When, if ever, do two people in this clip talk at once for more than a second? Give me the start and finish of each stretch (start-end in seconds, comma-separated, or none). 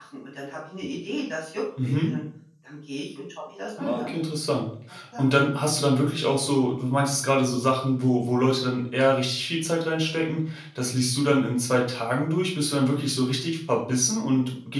none